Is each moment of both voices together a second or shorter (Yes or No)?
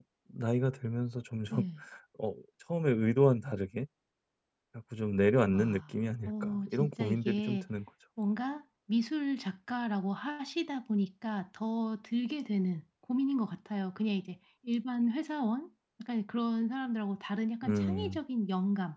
No